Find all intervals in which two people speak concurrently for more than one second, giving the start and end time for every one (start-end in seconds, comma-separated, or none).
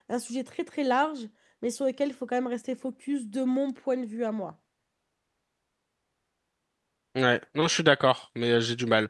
none